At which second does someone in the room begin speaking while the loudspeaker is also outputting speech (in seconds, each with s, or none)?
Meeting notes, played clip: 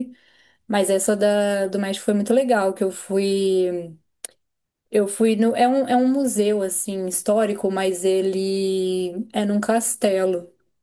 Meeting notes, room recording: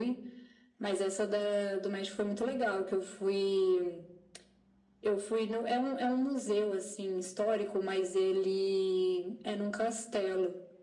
none